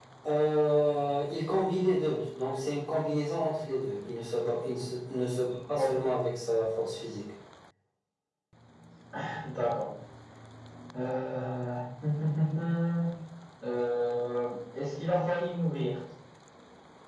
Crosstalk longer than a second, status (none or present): none